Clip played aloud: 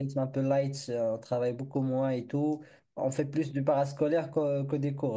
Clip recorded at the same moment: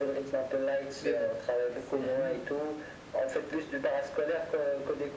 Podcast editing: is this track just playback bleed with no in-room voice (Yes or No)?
No